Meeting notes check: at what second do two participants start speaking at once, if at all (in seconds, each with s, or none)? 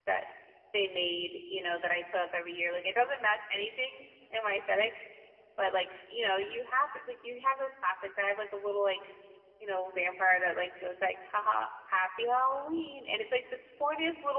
none